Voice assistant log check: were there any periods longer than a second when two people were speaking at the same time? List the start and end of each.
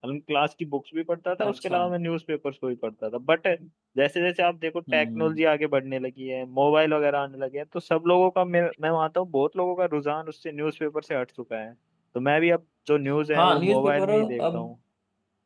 13.3-14.6

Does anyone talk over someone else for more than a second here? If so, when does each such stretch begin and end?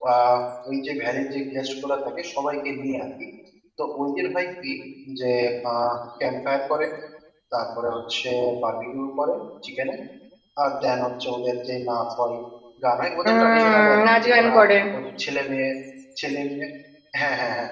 13.3-14.5

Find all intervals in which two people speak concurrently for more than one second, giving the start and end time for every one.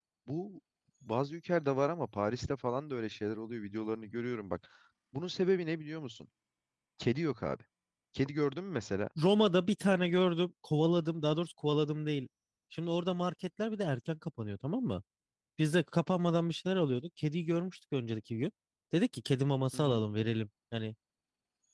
none

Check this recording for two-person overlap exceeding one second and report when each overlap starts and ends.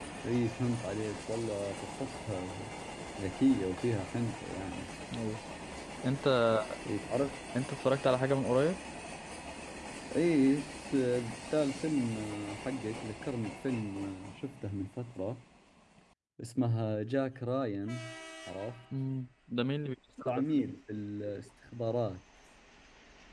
none

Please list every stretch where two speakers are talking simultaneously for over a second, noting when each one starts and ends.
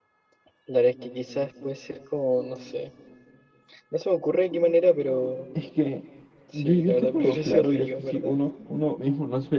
6.5-8.4

